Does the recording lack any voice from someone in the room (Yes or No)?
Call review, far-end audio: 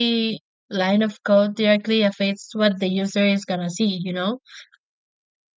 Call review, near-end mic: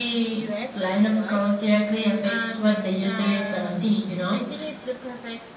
No